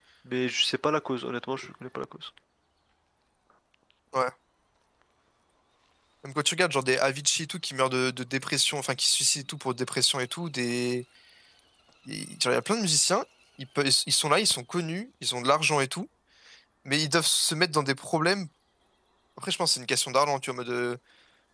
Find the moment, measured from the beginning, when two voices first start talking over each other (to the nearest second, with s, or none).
none